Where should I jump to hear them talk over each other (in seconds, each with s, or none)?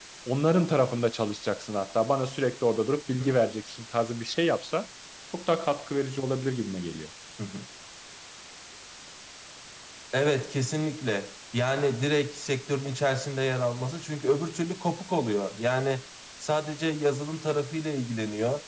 none